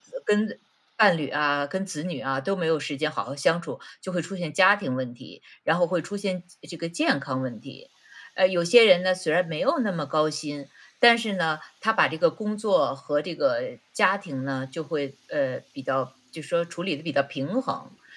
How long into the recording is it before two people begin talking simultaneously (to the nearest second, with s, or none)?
none